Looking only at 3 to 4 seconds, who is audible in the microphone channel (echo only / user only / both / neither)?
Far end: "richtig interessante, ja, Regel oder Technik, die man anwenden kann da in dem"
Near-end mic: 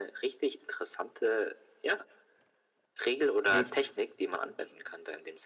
both